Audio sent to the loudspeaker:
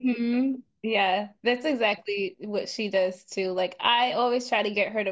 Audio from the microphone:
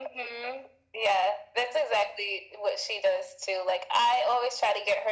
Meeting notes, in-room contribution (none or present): none